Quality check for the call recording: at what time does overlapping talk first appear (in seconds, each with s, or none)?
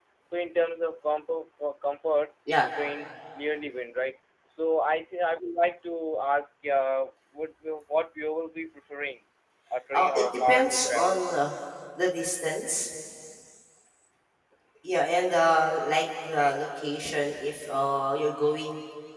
9.9 s